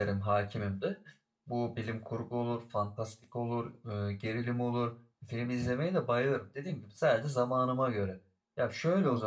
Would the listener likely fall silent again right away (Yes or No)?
Yes